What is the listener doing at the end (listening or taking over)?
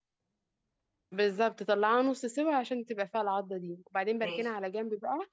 listening